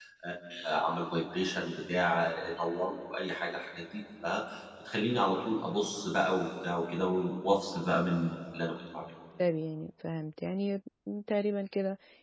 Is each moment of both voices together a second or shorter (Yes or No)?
Yes